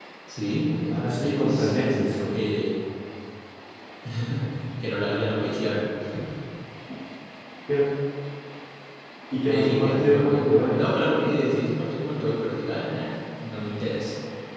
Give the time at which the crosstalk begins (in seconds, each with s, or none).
0.9 s